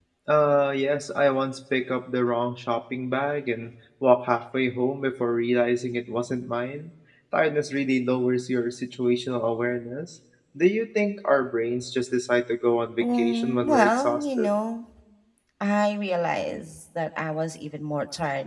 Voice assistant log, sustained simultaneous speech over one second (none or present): present